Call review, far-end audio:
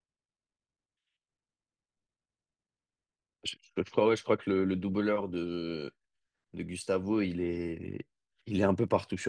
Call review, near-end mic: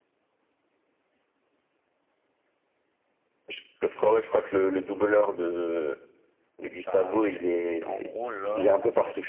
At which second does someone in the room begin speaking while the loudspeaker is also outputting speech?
7 s

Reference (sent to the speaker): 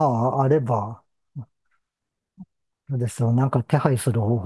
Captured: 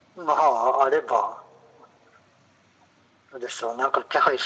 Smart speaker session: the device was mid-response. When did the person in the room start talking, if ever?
none

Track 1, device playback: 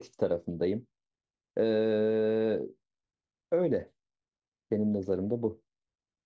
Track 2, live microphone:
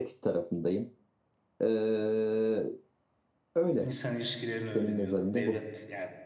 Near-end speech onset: 4 s

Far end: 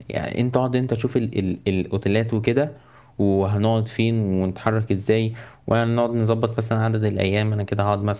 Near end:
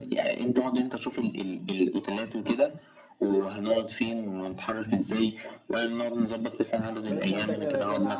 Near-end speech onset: 7 s

